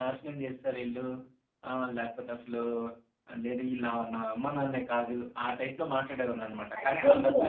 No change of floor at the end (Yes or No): No